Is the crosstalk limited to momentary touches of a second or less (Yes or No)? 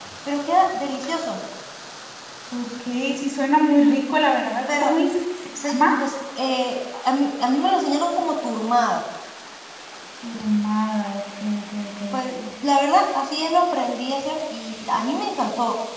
Yes